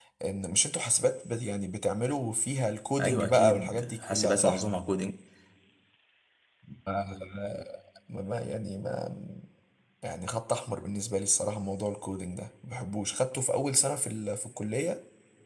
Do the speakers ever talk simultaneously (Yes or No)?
Yes